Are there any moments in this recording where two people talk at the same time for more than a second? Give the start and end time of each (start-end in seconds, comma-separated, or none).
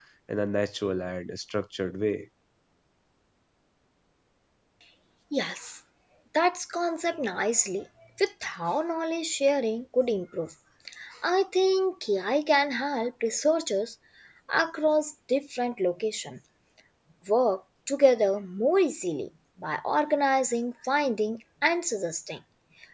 none